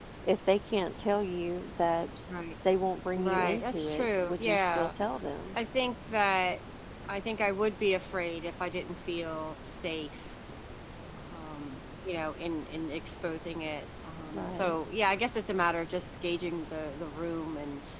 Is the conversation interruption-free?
No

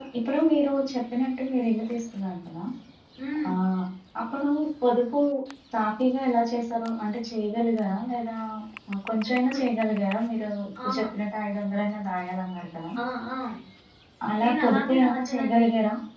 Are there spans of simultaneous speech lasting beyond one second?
Yes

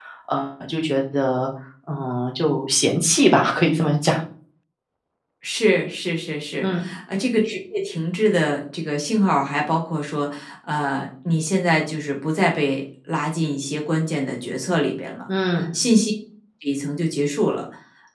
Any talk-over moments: No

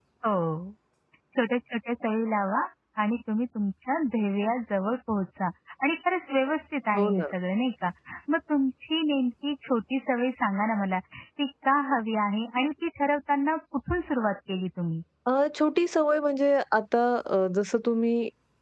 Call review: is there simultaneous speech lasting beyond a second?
No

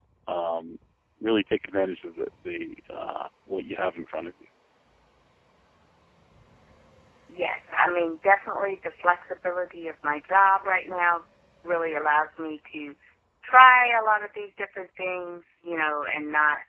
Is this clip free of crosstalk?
Yes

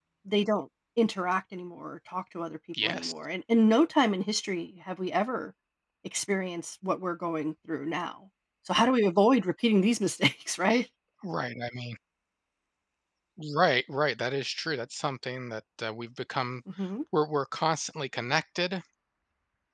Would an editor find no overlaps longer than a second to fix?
Yes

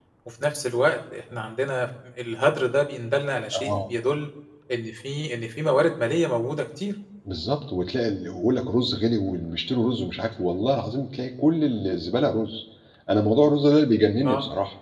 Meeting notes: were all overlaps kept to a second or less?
Yes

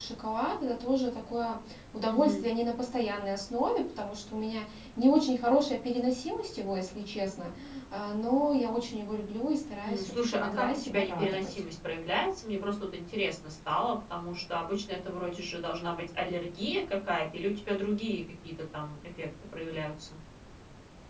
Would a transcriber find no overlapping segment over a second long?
No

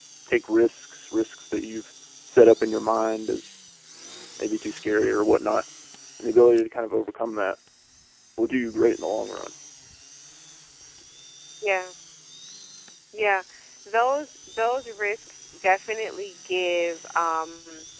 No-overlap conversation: Yes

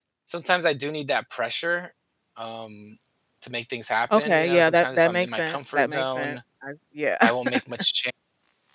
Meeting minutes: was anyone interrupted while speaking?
Yes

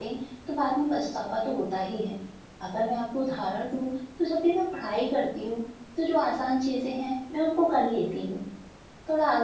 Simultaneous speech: No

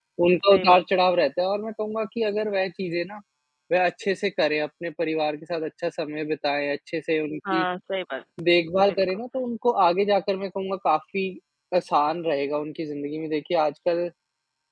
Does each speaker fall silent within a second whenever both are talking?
Yes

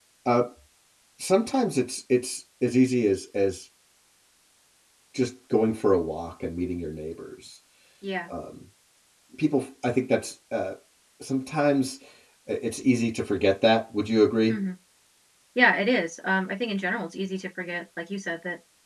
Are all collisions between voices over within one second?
Yes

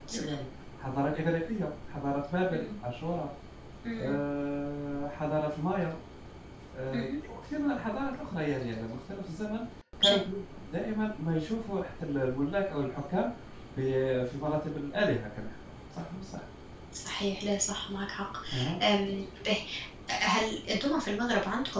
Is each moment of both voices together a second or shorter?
Yes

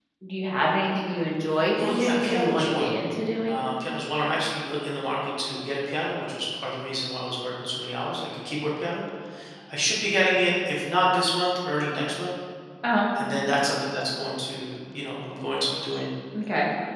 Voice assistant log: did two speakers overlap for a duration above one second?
Yes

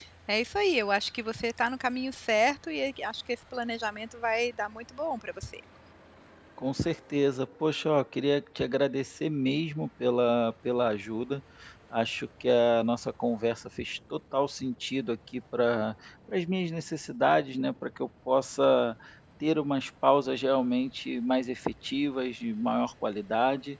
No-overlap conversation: Yes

